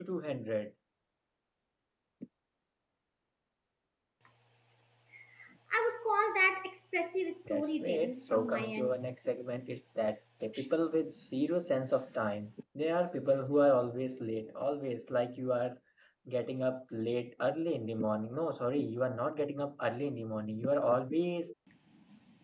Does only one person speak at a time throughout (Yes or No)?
No